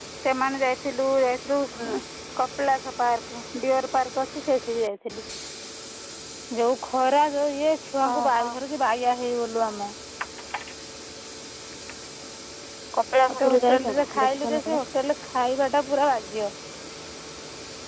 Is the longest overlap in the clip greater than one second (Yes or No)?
Yes